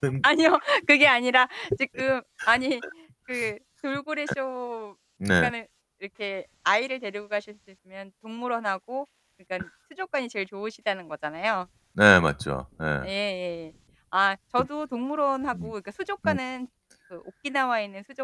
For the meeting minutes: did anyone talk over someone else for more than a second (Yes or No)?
No